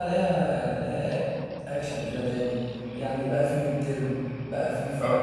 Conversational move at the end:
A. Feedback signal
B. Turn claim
A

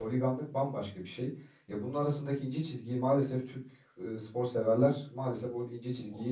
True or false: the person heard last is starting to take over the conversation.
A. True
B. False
A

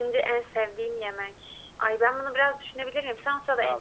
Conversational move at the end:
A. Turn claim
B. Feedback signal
A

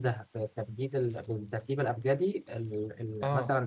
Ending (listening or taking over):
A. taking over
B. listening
A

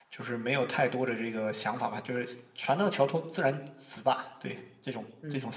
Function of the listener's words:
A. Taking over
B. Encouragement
A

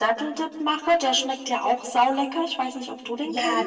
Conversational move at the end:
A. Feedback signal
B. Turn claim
B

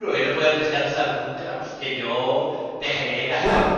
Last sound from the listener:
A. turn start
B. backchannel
B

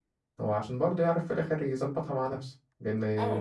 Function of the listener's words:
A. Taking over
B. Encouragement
A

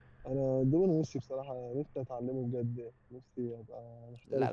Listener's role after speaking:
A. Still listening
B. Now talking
B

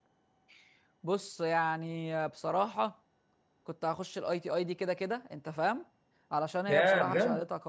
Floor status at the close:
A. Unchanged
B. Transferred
A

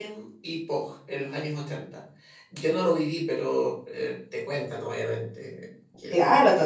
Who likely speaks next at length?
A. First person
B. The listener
B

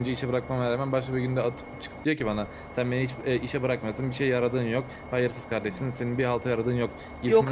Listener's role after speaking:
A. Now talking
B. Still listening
B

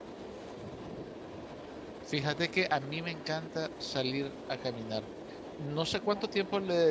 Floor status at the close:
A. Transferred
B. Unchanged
B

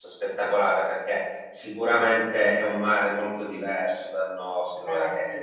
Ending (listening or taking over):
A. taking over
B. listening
B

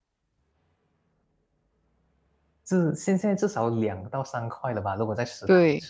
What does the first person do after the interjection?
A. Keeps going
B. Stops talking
B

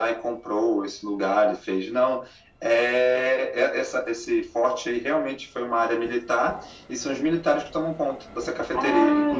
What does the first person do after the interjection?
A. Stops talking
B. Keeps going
A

